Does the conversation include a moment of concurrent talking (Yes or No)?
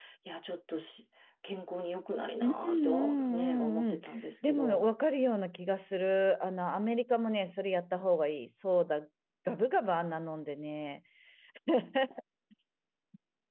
Yes